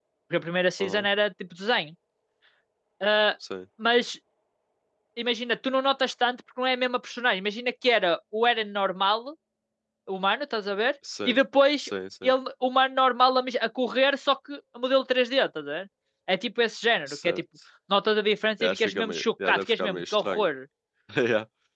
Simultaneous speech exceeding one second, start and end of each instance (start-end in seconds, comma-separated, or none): 18.6-20.4